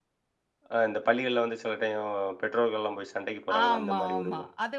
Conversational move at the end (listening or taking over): taking over